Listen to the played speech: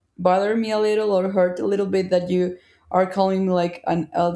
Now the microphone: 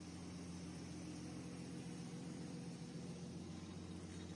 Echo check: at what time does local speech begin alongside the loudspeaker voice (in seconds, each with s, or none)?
none